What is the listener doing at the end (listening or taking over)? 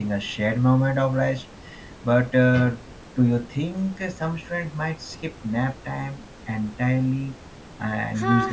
taking over